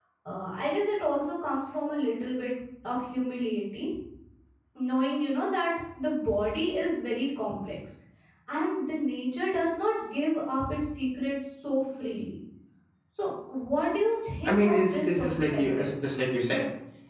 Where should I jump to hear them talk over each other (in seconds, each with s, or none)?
14.4 s